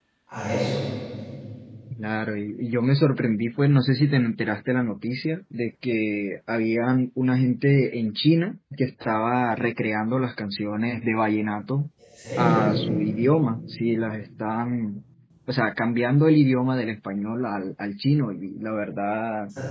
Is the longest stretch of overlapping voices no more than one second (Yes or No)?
Yes